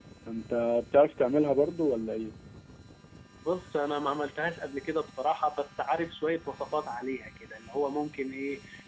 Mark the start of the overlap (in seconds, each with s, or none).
none